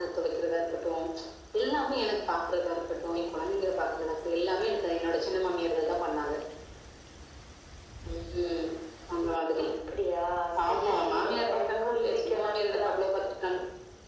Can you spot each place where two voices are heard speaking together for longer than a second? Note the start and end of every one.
10.7-12.7

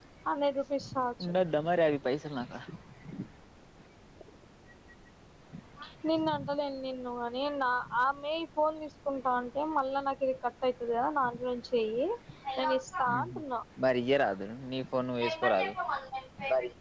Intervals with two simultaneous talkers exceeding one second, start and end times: none

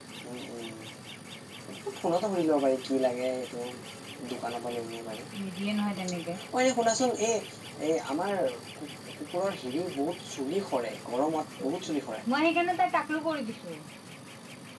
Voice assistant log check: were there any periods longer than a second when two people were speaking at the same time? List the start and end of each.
none

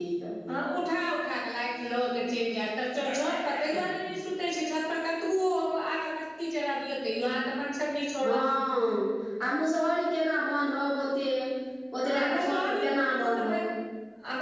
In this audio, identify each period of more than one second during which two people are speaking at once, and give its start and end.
12.1-13.6

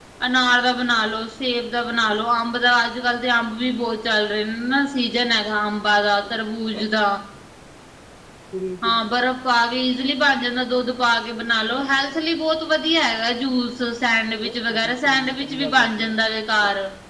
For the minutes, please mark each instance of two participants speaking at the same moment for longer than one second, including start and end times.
14.4-16.1

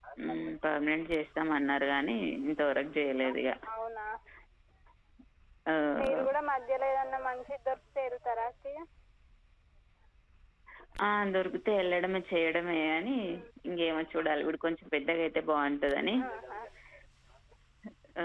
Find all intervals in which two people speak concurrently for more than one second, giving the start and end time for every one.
none

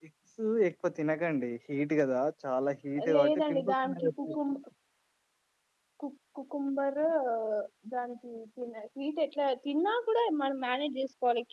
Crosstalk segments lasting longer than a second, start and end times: 3.2-4.4

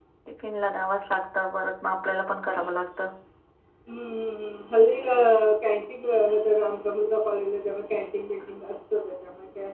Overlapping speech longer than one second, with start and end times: none

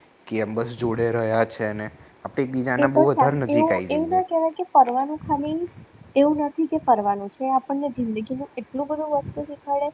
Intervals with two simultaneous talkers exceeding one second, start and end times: 2.8-4.2

